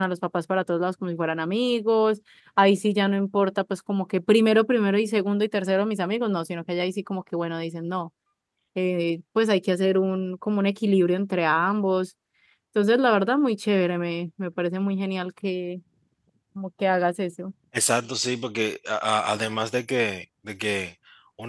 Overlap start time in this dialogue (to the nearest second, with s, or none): none